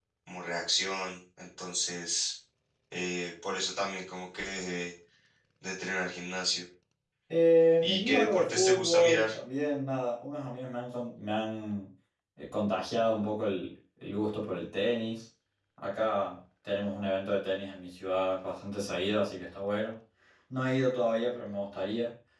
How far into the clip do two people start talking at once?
8 s

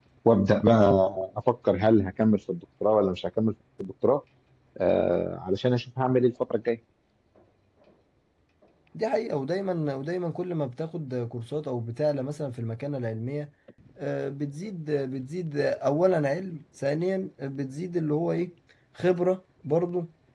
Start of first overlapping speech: none

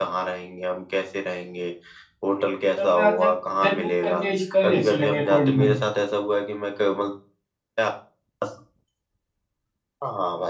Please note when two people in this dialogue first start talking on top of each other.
3 s

